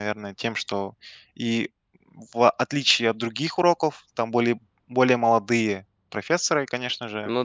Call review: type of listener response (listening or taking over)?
listening